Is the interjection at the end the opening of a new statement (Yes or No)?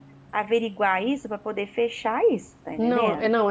Yes